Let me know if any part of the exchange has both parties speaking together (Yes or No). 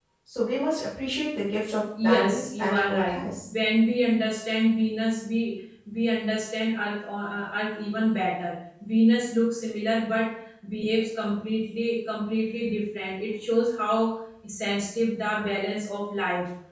Yes